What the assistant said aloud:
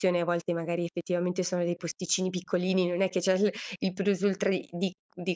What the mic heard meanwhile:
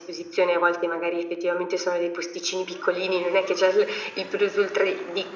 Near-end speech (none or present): none